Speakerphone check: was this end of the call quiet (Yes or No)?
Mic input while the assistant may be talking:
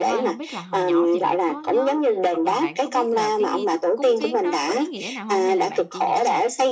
No